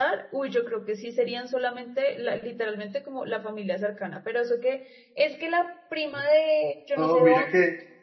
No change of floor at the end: No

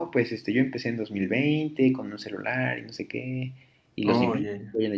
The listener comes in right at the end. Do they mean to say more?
No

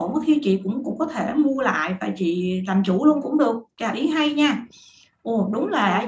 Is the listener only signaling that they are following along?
No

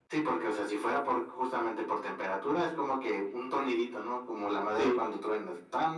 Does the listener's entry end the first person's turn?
No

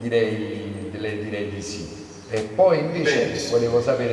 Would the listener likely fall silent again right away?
Yes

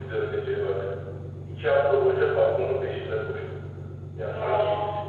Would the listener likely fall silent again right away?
Yes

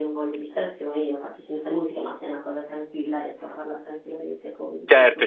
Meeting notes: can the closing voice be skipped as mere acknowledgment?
No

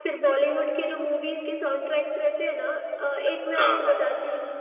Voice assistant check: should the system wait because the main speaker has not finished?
Yes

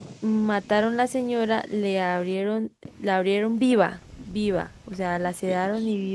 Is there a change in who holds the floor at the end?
No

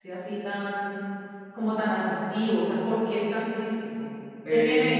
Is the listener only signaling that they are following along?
No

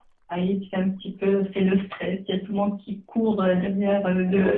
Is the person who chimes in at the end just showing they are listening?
No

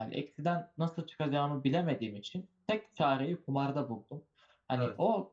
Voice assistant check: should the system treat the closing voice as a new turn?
No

